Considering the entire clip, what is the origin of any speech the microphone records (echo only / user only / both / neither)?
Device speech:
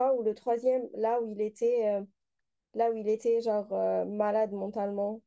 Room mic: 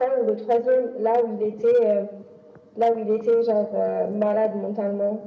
echo only